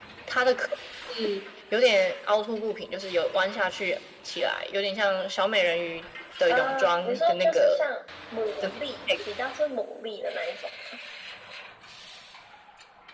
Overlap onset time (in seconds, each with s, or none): 6.5 s